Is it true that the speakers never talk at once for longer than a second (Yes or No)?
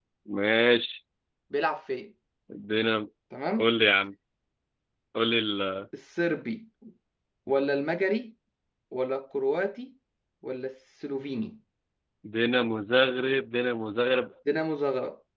Yes